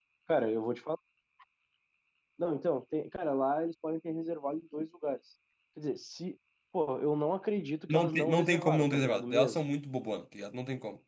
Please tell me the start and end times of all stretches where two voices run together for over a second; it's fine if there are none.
7.9-9.6

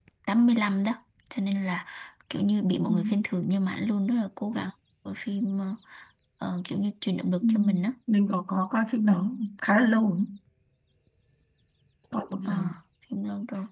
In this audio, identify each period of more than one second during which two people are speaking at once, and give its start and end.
none

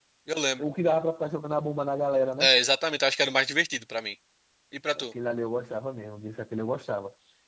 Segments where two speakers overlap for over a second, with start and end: none

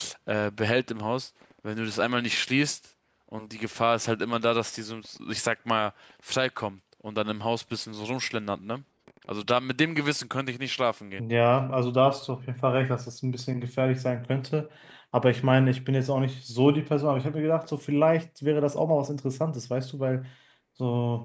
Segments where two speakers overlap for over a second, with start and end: none

